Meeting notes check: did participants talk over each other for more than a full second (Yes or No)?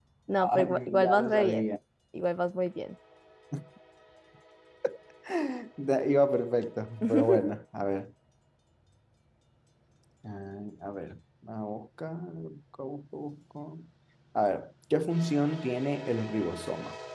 Yes